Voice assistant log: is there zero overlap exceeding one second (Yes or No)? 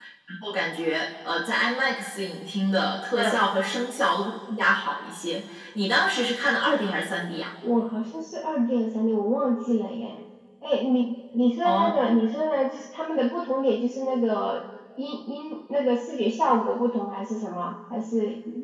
Yes